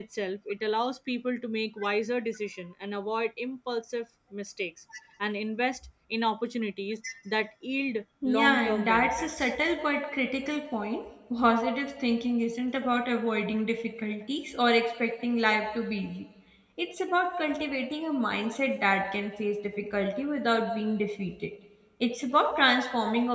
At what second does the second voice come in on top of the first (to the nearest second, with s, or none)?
8 s